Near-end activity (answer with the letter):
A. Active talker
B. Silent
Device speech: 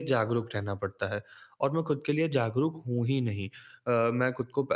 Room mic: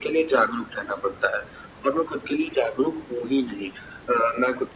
B